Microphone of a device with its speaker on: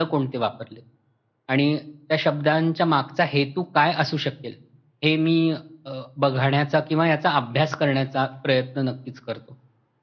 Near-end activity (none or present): none